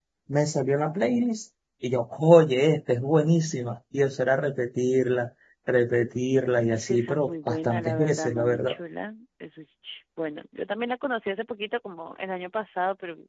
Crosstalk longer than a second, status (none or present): present